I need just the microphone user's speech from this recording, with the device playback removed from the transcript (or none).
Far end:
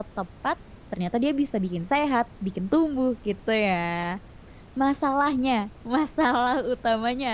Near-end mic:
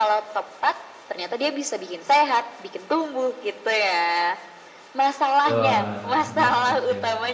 Betul, heeh, setuju.